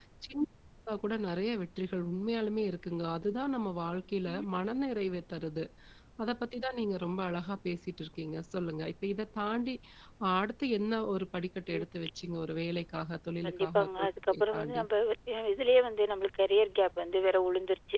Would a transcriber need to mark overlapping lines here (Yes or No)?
Yes